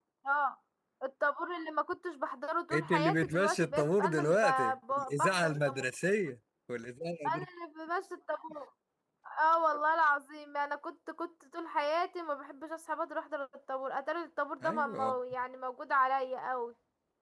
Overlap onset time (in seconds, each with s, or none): 2.7 s